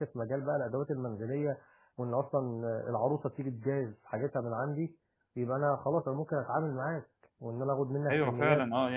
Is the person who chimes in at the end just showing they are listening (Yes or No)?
No